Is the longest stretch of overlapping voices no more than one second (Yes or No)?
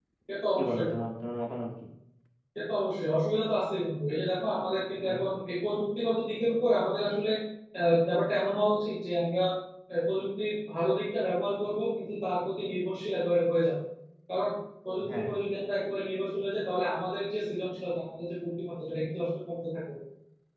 Yes